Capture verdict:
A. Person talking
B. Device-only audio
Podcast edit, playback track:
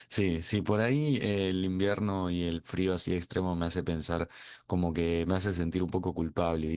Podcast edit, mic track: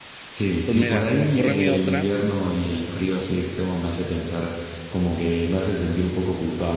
A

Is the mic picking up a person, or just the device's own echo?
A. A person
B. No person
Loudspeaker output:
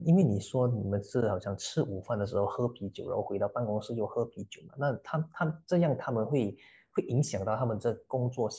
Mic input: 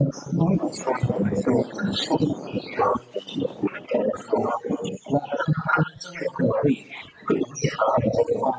B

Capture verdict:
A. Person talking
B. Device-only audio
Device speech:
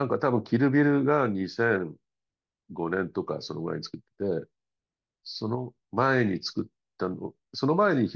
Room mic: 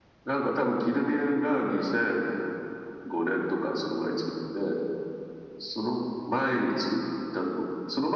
B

